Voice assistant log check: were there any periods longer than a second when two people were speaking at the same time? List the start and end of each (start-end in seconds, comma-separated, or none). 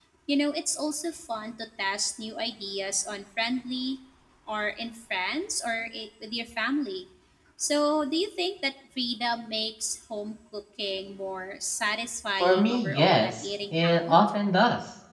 12.4-14.2